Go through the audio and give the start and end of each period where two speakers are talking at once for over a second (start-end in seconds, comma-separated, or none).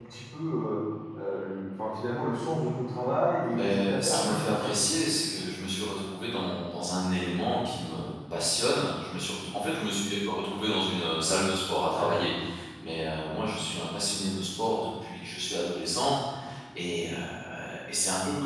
3.5-4.7